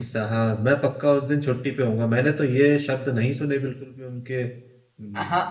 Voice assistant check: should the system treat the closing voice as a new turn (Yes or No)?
Yes